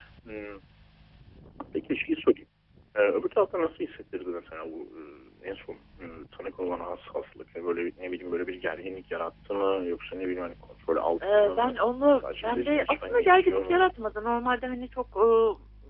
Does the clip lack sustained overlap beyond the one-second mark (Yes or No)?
No